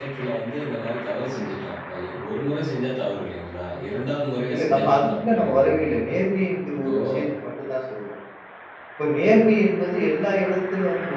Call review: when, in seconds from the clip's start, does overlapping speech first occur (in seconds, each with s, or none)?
4.5 s